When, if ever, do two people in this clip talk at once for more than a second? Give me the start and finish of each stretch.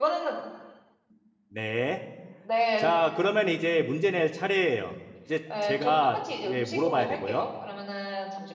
5.6-7.5

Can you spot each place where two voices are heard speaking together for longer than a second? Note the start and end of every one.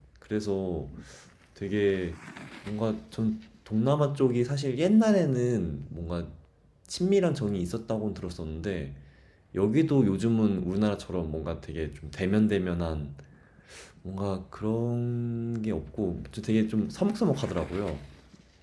none

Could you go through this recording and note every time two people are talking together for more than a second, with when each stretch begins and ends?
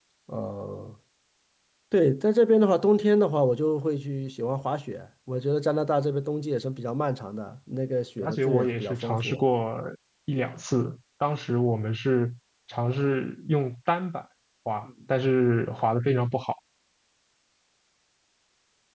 8.2-9.4

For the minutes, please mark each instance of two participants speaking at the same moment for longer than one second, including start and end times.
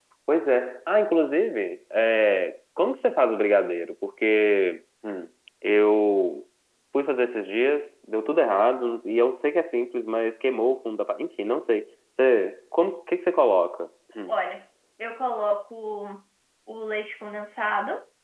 none

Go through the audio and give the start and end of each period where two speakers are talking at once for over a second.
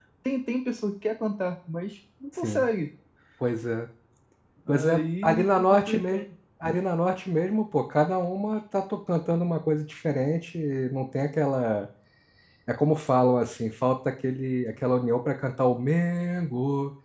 4.7-6.2

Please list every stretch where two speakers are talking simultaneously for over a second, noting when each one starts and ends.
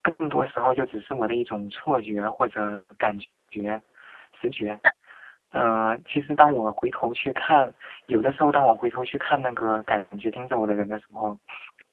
none

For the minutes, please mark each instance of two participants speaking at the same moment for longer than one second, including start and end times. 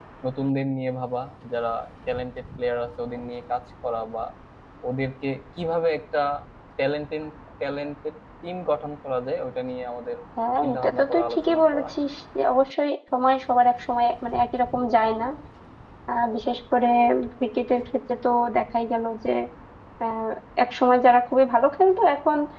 10.6-11.9

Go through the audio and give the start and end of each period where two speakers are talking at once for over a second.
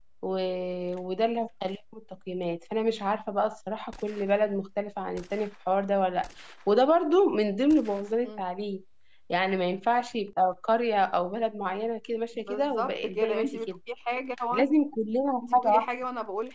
12.5-13.8

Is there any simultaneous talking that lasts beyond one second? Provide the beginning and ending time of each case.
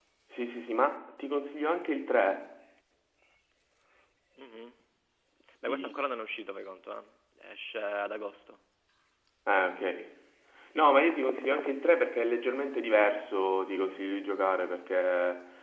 none

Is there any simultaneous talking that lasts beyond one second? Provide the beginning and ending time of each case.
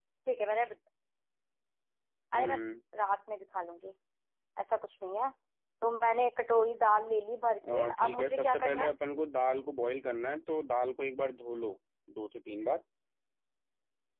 7.7-8.9

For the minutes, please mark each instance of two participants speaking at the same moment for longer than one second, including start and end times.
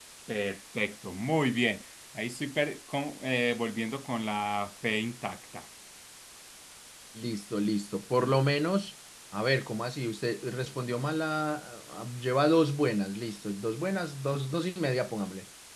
none

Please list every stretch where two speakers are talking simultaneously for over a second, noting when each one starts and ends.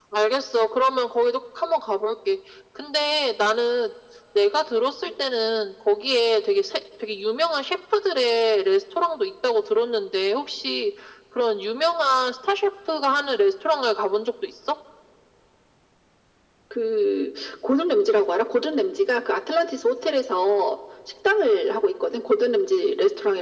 none

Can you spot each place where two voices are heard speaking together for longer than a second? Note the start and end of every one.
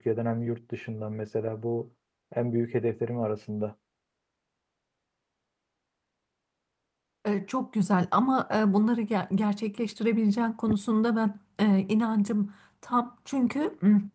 none

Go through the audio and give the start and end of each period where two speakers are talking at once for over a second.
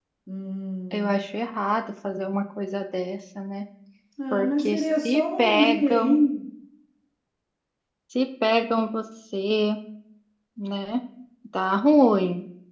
4.3-6.2

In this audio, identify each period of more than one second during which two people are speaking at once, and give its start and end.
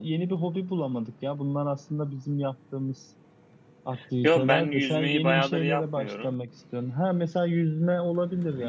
4.2-6.4

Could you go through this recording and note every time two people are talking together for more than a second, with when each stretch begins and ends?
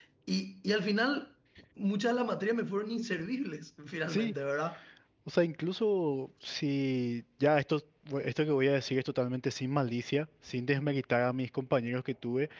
none

